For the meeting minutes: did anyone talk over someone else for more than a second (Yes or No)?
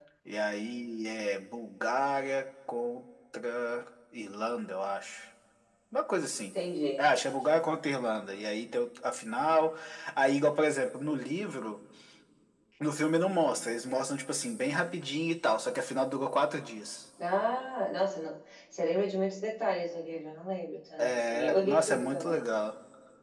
Yes